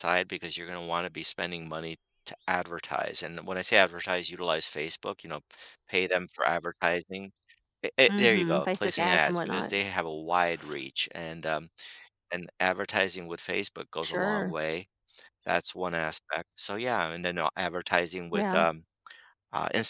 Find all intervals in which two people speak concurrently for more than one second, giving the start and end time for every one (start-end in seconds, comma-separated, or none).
8.1-9.7